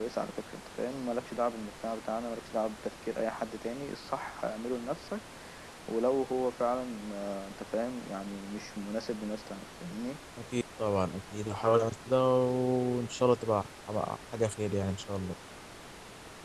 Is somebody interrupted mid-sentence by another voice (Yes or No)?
No